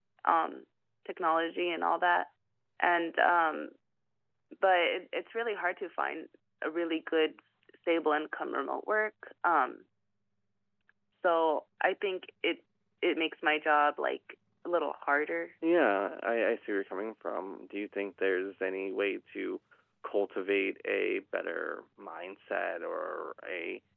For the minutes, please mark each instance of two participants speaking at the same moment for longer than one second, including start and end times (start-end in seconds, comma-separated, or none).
none